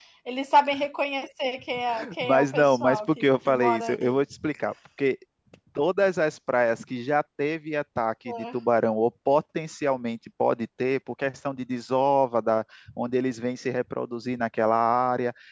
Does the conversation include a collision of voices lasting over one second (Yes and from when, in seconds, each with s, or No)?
Yes, from 2.2 s